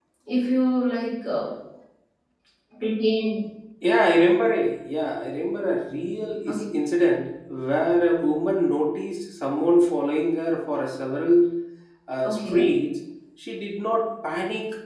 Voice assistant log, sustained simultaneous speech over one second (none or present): none